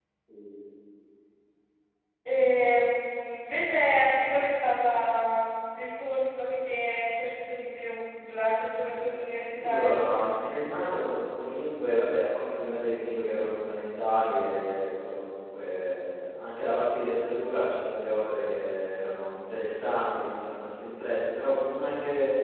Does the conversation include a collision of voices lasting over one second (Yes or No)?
No